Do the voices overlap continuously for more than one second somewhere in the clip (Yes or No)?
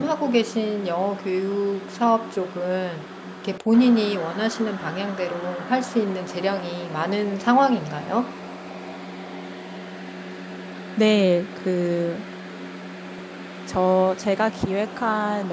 No